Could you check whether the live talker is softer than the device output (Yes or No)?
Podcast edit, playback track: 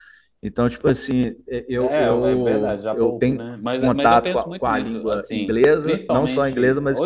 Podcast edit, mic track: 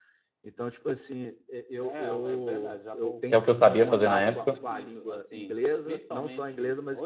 No